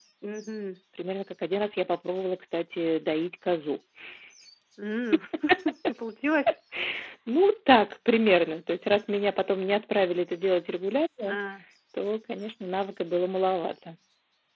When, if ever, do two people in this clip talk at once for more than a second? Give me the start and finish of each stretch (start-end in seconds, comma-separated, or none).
none